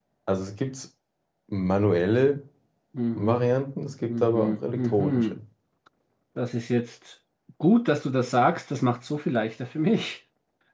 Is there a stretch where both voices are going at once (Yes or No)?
Yes